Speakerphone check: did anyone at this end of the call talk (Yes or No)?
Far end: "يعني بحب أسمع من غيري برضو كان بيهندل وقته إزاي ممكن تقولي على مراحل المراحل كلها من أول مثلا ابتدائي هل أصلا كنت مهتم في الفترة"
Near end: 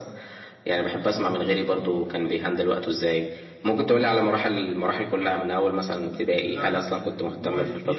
Yes